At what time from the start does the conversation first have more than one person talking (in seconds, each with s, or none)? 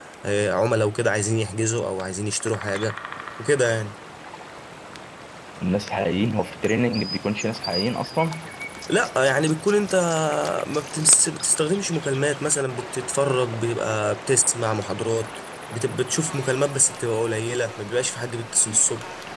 none